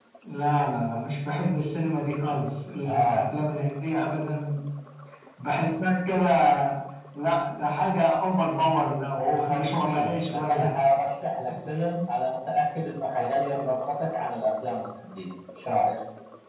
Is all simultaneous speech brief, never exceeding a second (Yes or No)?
No